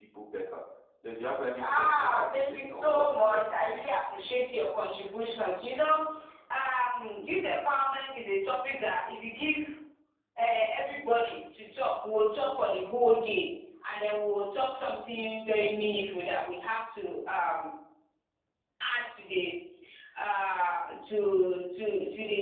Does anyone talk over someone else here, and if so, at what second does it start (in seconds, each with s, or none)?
1.7 s